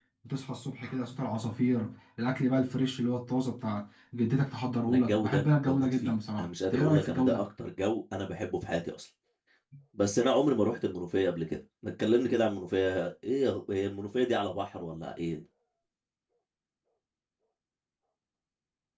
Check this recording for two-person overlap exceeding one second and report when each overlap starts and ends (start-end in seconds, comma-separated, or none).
4.9-7.4